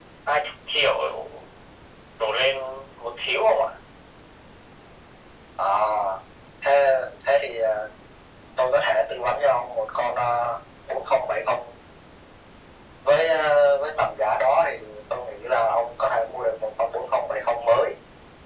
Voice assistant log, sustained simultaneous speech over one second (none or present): none